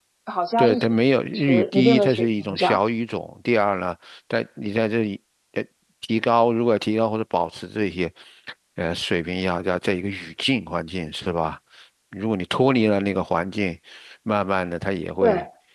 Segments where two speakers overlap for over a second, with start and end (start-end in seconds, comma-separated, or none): 1.4-2.8